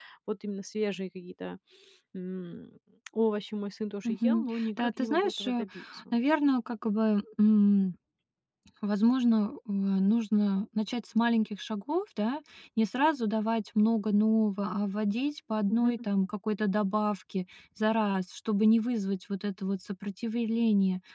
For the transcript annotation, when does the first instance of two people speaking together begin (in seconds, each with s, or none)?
4.0 s